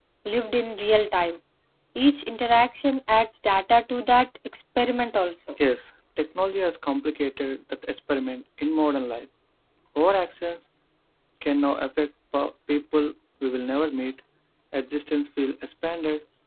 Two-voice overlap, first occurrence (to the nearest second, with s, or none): none